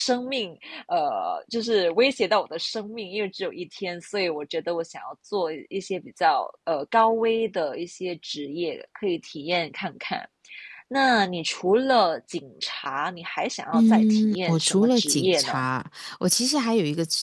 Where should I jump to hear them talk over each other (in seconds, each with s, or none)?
13.7 s